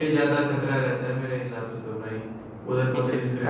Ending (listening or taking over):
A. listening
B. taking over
B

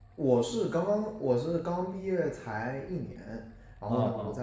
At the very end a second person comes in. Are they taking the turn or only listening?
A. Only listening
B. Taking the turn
A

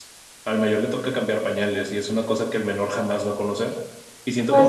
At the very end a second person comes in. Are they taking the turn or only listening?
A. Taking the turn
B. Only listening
B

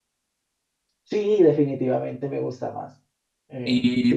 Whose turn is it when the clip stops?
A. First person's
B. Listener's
B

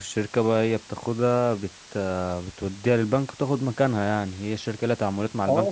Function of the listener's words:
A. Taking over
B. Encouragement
A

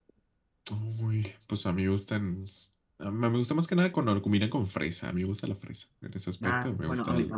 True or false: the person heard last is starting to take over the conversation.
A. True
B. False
A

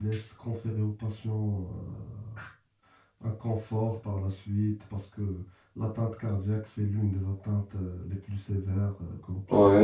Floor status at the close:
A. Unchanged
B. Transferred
B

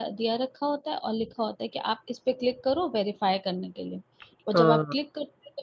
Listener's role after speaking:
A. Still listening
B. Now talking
A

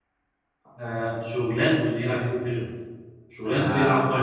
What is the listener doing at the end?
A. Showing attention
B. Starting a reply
B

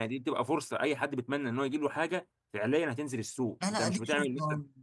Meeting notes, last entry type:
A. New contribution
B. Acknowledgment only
A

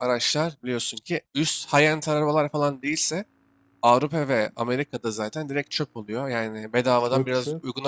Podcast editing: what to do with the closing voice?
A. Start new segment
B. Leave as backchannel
A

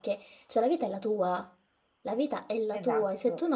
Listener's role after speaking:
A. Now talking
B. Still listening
B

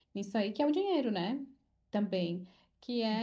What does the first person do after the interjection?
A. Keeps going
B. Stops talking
A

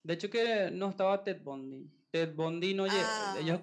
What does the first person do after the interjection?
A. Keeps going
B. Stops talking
A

